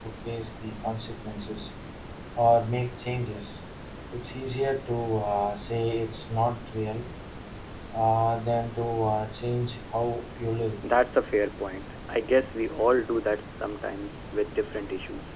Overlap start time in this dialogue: none

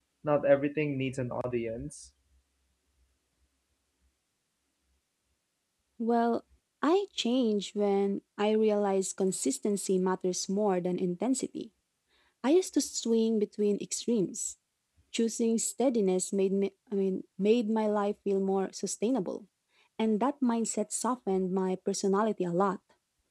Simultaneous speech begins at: none

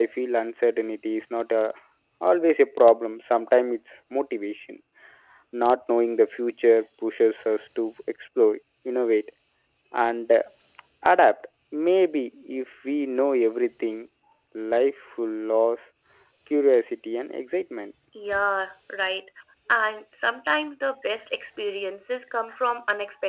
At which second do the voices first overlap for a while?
none

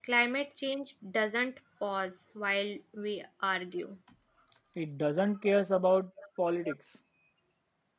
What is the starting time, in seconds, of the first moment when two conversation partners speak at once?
none

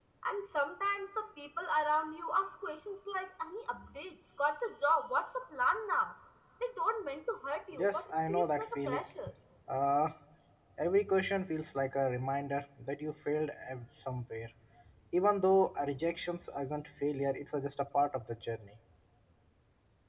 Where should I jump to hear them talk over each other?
8 s

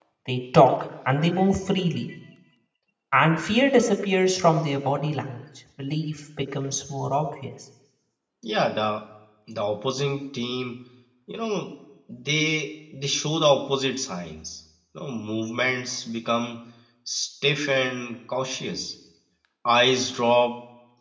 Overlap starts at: none

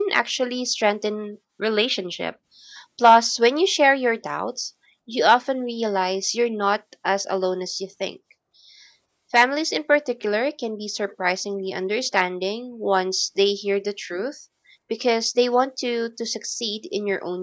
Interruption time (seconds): none

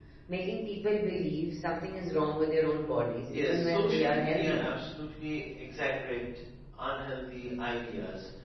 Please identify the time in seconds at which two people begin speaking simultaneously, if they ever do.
3 s

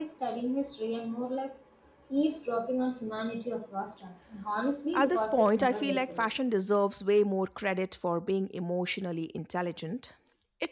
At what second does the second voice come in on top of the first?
5 s

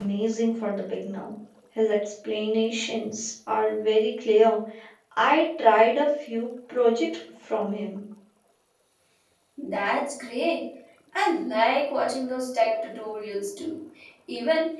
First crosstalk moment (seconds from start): none

